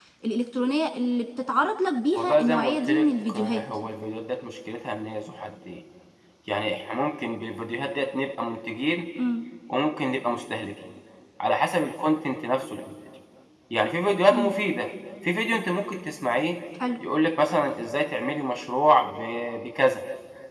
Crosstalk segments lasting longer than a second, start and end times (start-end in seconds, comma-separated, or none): 2.2-3.6